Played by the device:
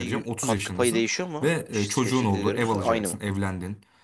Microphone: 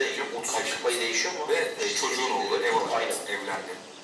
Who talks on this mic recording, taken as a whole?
echo only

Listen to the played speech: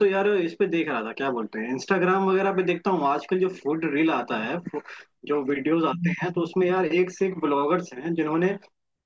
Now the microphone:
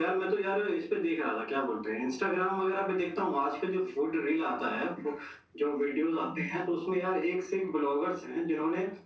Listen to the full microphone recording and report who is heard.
echo only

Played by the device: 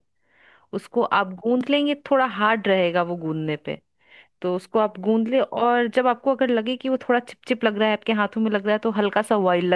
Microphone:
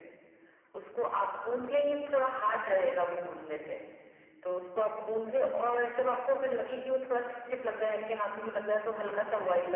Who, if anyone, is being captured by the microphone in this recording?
echo only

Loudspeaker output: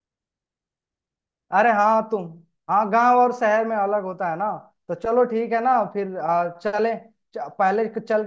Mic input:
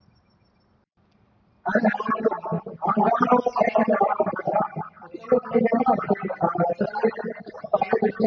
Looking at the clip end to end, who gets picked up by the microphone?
echo only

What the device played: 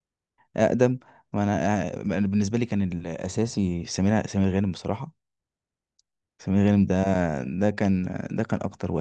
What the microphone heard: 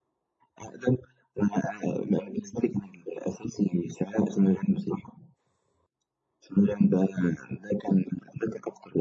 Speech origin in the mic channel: echo only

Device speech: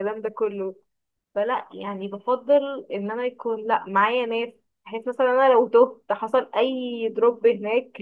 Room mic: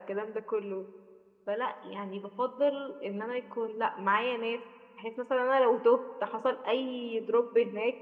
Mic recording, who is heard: echo only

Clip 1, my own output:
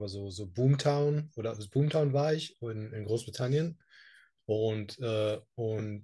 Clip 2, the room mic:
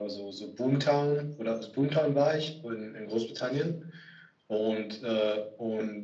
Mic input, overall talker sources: echo only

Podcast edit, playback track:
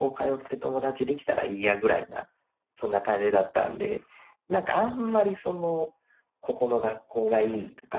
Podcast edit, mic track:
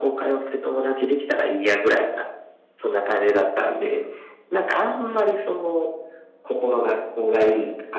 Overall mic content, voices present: echo only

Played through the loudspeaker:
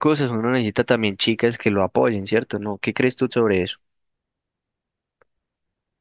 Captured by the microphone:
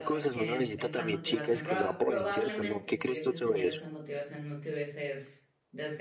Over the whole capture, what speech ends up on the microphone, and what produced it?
both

